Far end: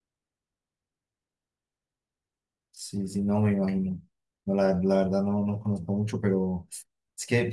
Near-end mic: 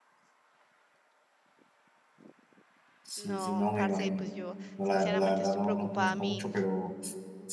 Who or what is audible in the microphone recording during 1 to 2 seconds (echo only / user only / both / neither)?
neither